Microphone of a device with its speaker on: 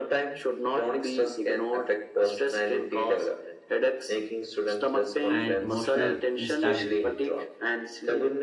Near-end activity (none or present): present